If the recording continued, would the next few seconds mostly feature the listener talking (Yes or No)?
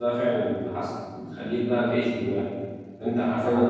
No